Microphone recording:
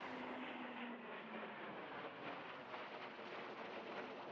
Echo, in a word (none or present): none